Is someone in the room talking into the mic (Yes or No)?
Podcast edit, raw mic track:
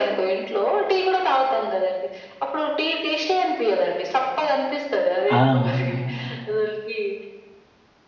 Yes